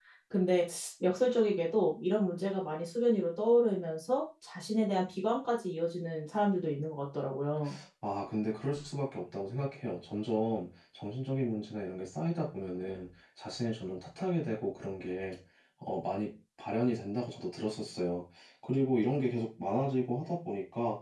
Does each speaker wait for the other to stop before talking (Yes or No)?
Yes